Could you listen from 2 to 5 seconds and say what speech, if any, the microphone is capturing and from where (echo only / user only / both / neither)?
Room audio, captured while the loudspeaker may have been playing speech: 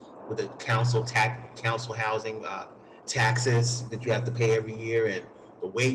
user only